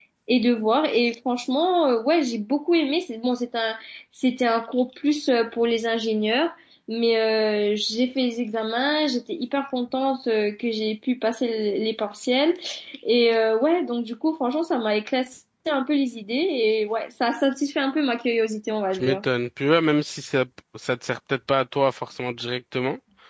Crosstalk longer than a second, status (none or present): none